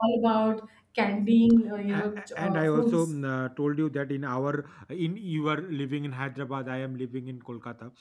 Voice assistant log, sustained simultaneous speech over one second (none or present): present